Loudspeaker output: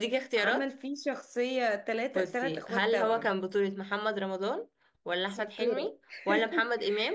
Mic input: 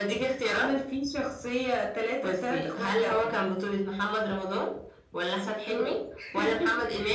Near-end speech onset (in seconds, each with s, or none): none